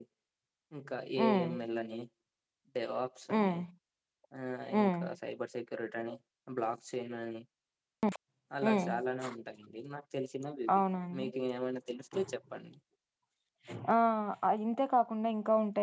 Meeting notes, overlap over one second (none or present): none